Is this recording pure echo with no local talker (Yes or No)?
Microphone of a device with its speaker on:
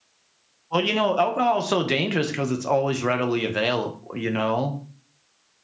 No